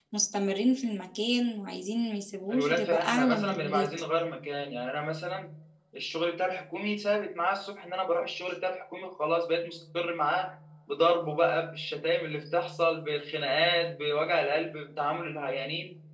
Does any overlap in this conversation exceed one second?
Yes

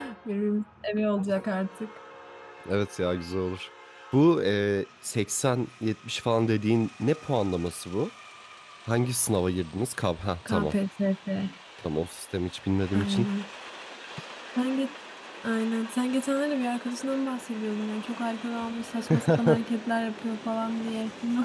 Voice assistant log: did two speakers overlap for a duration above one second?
No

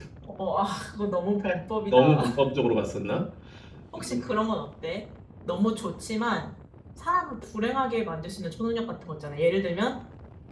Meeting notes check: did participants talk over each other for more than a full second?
No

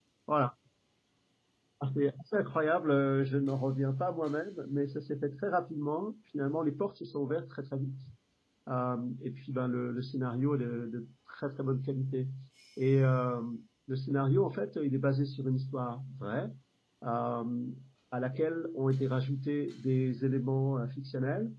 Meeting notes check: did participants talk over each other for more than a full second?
No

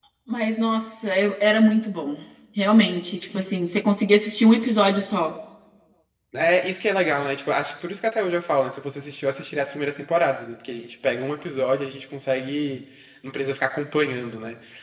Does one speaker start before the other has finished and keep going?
No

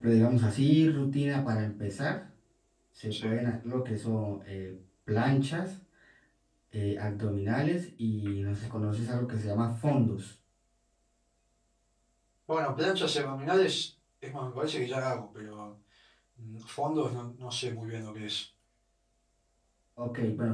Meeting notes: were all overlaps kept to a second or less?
Yes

